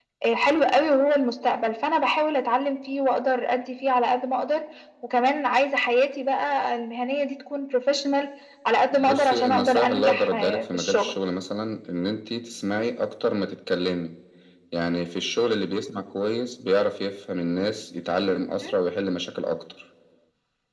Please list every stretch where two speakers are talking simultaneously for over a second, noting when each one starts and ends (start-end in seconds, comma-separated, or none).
8.9-11.1